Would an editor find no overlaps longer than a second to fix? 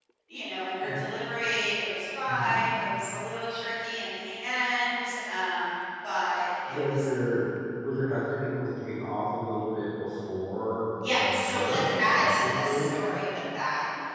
No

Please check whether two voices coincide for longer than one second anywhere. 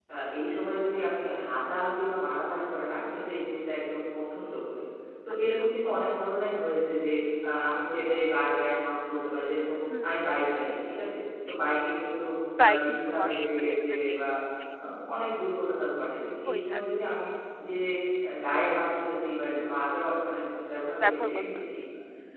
Yes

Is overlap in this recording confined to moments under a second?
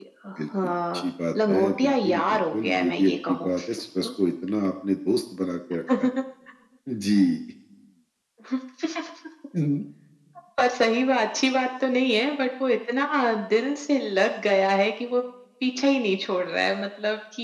No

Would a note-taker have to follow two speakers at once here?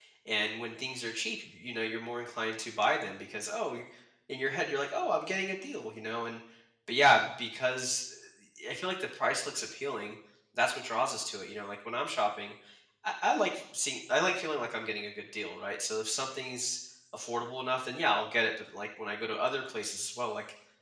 No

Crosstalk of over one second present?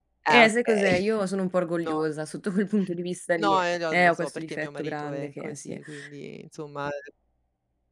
Yes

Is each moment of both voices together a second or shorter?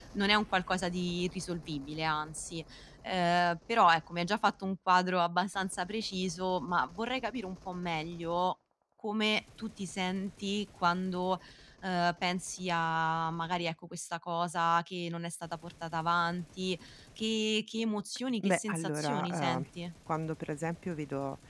No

